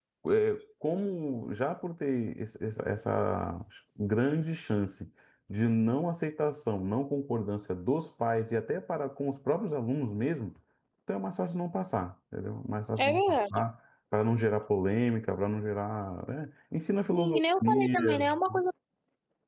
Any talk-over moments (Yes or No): Yes